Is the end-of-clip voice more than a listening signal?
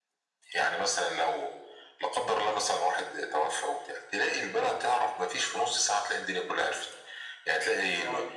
No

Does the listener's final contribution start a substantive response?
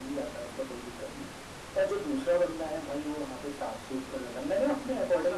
Yes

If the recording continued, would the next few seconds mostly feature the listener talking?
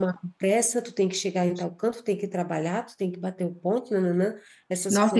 Yes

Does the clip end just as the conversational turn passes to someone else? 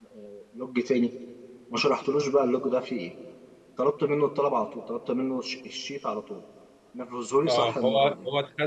Yes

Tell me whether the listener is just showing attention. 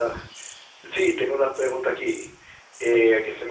Yes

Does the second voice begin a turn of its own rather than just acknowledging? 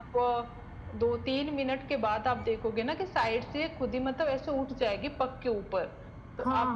Yes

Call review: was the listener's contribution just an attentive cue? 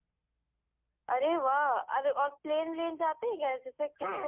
No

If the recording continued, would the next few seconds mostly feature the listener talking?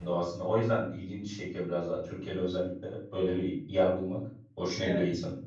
Yes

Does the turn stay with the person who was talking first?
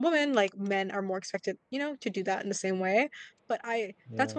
Yes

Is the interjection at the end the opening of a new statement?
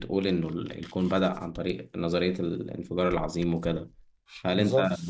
No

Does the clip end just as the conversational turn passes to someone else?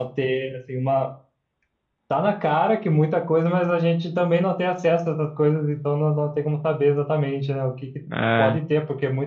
No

